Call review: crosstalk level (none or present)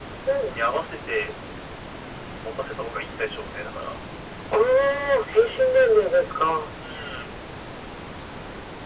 none